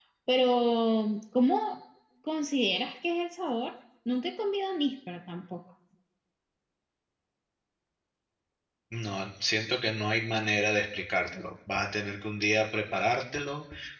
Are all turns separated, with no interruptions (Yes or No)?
Yes